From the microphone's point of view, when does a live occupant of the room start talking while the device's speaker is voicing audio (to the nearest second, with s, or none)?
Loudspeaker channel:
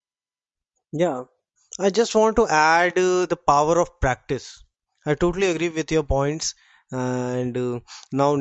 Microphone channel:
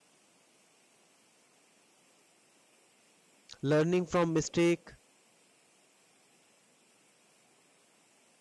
4 s